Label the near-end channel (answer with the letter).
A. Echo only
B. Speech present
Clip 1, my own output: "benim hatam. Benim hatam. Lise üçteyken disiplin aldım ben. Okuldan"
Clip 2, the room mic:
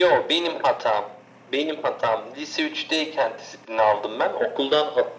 A